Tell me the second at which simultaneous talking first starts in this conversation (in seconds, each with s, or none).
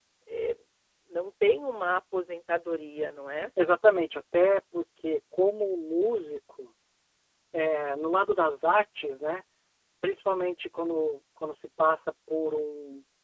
none